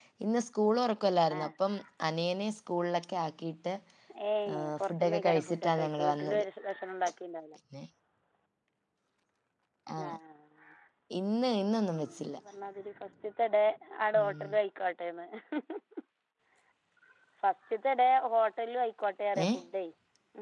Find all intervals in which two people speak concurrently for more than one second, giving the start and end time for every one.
4.5-6.4

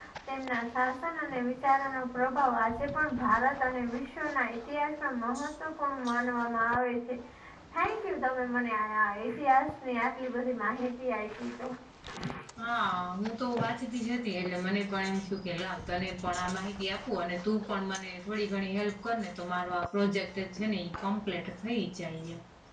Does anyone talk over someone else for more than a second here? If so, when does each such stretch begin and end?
none

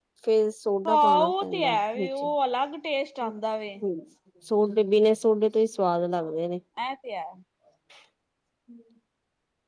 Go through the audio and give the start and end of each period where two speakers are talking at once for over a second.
0.9-2.2

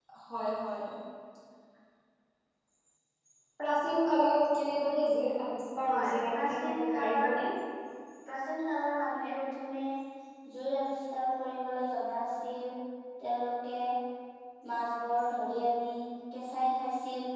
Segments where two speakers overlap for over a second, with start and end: 5.9-7.4

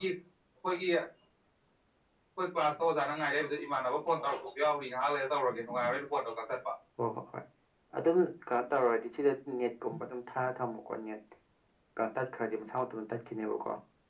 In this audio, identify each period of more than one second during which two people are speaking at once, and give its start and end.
none

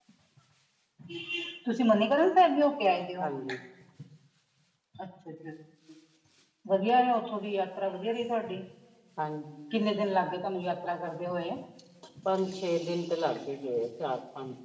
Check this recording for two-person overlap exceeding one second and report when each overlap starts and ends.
none

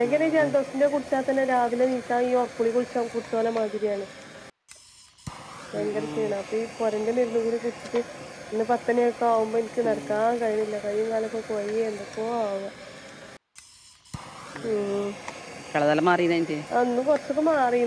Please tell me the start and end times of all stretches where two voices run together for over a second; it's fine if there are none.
none

